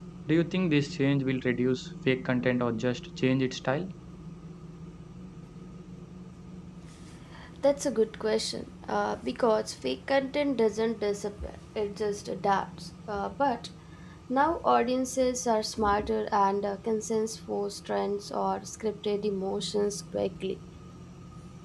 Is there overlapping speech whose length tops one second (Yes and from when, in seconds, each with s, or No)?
No